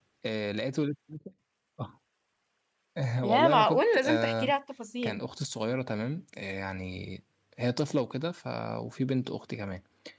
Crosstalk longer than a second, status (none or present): present